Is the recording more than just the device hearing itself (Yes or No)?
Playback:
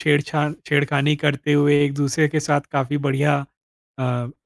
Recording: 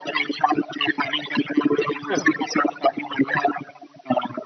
Yes